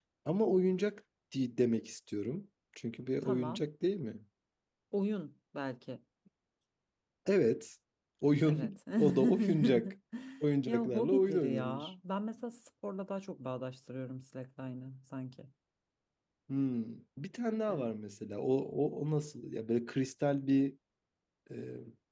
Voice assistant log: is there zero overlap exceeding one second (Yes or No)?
No